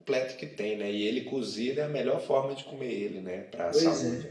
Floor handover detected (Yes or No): Yes